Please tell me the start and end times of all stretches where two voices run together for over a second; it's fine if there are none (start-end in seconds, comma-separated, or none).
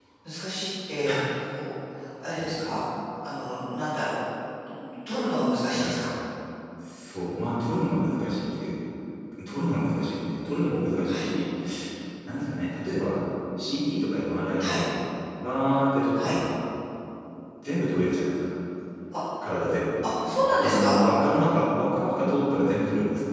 none